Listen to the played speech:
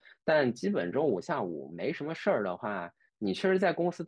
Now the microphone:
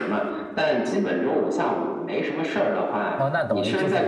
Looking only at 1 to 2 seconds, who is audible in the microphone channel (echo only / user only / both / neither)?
echo only